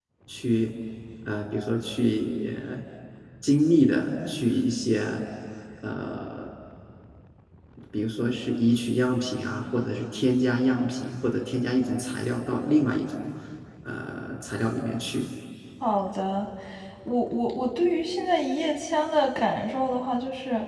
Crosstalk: none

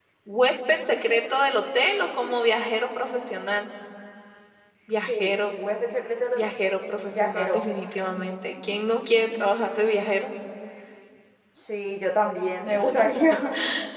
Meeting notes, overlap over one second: none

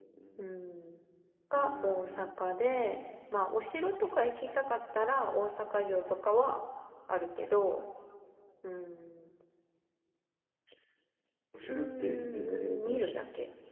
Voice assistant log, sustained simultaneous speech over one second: present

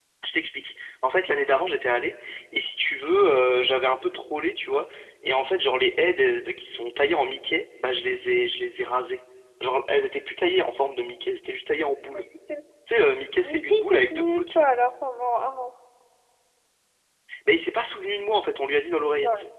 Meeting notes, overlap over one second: present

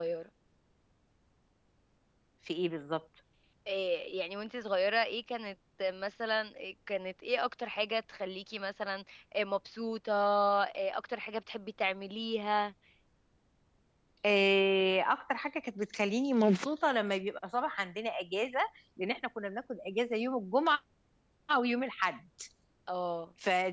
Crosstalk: none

